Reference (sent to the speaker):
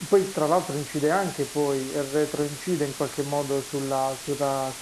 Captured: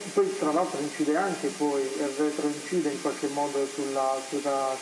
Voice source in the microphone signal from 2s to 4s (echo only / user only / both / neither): echo only